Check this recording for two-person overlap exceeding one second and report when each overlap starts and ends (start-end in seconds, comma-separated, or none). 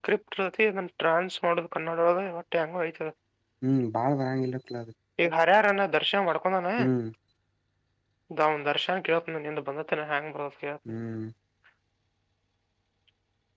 none